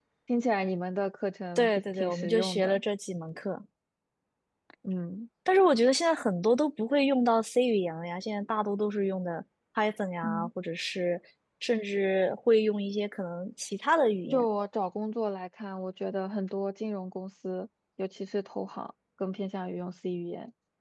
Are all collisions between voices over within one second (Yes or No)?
No